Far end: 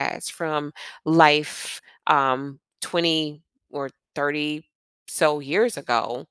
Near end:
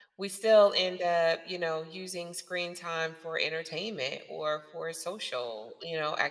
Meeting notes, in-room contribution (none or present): present